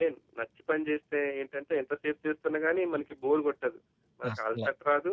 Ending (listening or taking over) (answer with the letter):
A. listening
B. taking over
A